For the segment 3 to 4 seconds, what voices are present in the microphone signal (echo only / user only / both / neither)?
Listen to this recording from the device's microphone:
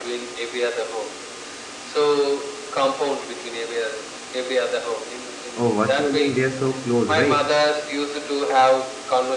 echo only